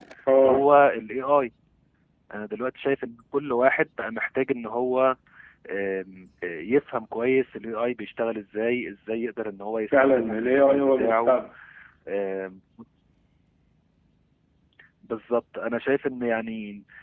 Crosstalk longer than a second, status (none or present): present